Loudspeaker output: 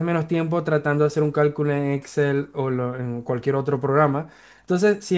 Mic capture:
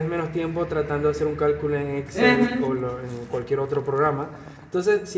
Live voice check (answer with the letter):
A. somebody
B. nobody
A